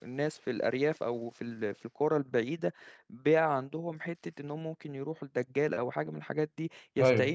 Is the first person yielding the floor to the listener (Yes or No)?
No